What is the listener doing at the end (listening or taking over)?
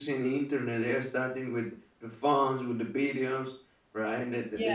listening